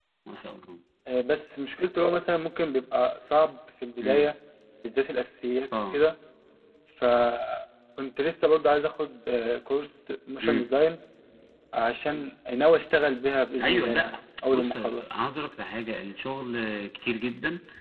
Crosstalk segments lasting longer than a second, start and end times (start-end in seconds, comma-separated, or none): 13.6-15.1